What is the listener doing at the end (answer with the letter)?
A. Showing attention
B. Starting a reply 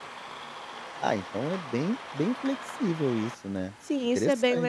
B